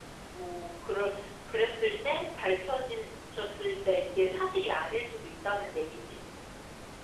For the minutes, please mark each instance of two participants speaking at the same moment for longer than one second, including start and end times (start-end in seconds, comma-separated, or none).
none